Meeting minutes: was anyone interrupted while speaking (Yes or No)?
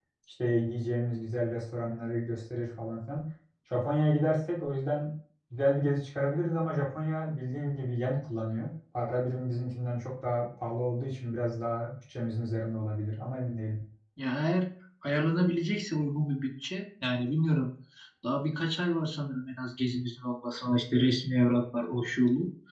No